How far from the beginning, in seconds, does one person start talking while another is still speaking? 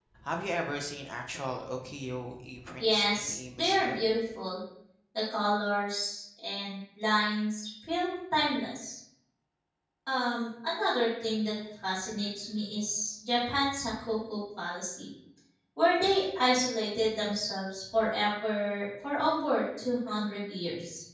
3 s

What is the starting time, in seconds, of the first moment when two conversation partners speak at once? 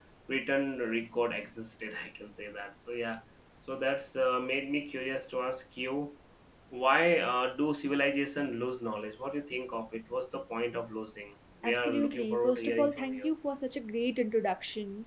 12 s

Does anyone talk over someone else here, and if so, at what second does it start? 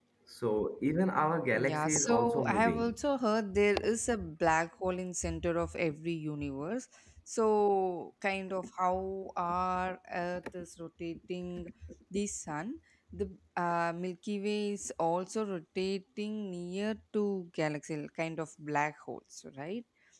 2 s

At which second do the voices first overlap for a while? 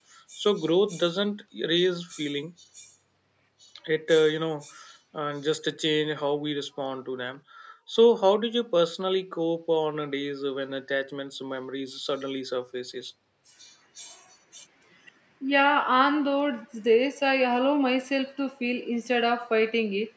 none

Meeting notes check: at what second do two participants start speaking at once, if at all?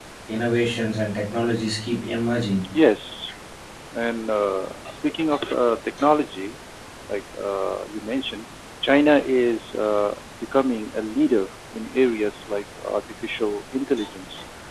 none

